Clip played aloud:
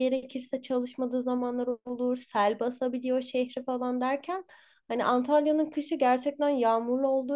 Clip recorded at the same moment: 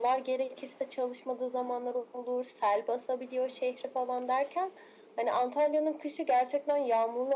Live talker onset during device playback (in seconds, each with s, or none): none